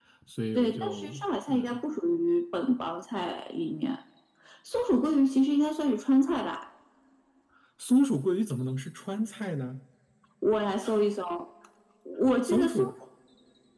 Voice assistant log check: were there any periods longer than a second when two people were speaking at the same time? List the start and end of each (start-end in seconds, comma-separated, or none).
0.6-1.8